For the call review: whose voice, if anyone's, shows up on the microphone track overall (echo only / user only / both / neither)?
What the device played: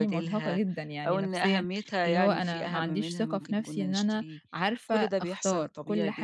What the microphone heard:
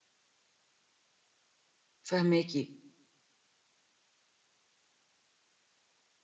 user only